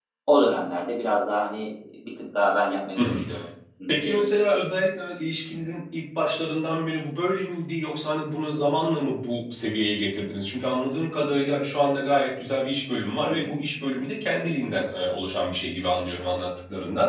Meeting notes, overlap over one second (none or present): none